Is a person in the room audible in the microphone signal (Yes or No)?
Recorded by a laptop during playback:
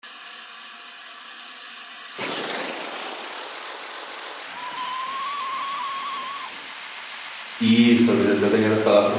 Yes